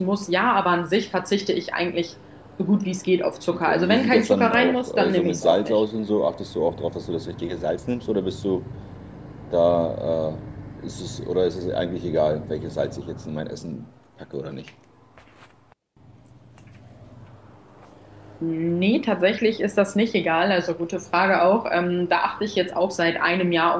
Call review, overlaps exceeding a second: present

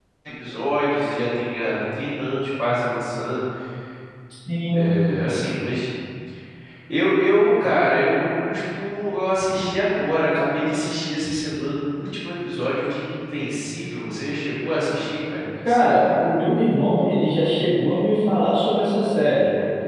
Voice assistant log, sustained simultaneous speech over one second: none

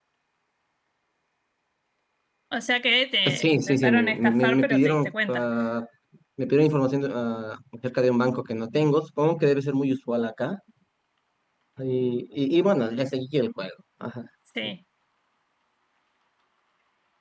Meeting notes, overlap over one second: present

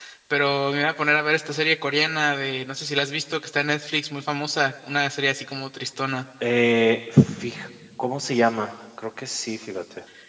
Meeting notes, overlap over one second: none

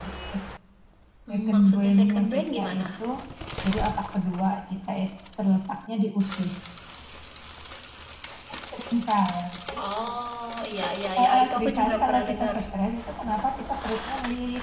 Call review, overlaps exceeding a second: present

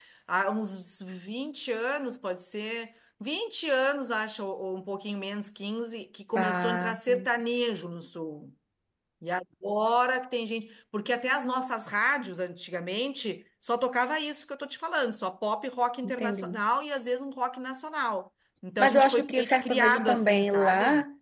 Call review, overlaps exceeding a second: present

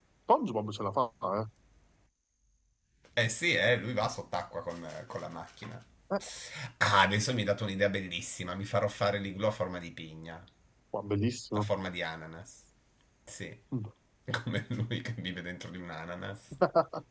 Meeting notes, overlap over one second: none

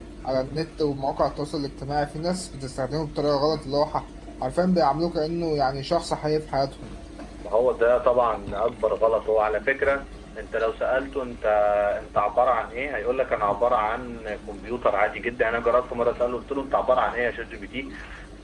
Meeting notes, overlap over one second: none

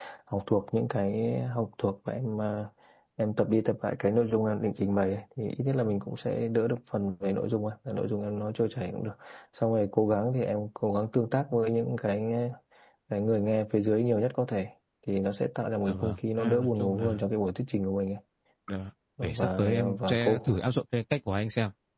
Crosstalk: present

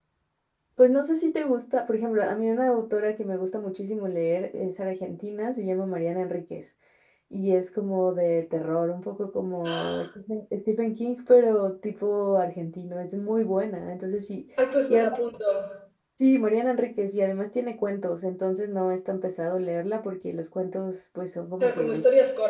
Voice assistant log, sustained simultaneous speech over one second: none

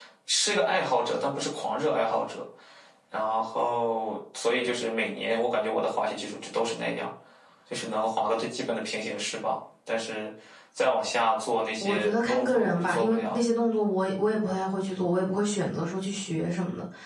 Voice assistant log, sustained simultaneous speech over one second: present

